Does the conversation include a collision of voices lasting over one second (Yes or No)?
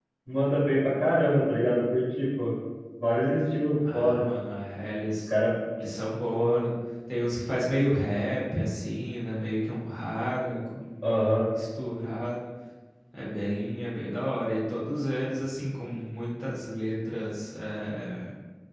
No